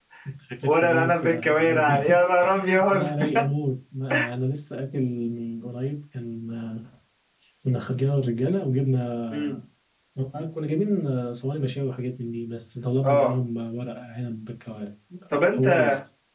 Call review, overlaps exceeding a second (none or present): present